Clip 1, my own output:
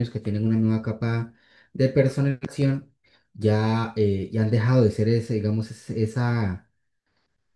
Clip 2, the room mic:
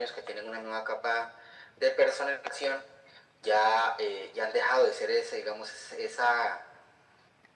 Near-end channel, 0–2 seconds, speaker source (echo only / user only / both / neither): echo only